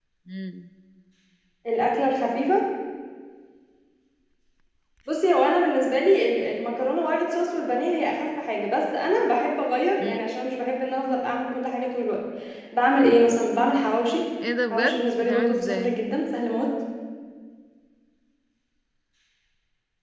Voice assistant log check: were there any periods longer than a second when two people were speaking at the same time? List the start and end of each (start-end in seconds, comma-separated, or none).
14.7-16.0